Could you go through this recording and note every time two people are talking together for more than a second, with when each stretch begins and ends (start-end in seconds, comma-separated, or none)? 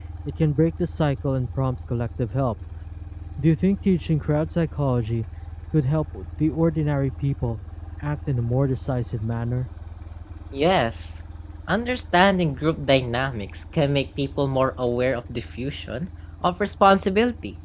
none